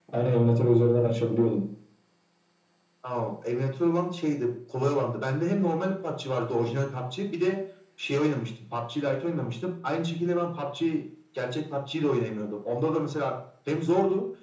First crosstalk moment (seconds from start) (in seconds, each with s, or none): none